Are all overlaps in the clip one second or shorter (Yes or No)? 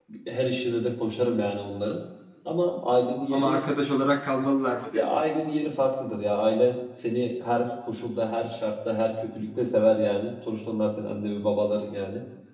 Yes